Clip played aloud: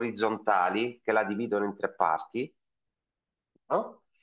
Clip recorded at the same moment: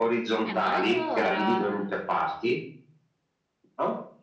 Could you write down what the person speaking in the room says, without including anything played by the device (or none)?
Eh, ma allora,